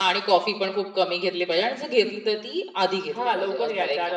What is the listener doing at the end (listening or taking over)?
taking over